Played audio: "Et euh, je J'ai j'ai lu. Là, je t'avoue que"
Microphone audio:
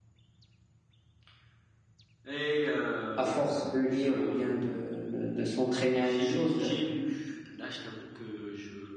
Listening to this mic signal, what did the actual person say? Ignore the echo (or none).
À force de lire ou bien de, de, de s'entraîner à une chose, euh,